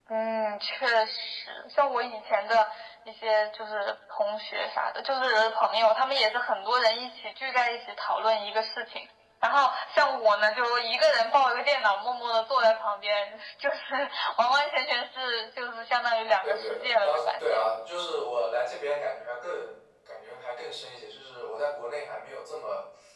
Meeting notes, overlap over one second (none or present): present